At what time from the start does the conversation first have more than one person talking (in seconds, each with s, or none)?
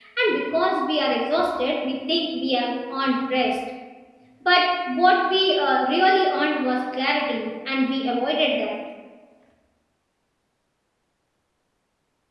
none